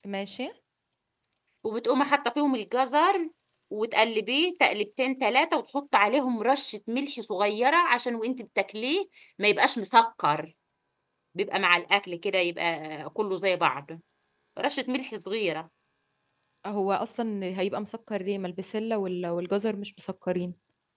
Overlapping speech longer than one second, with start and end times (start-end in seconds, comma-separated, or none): none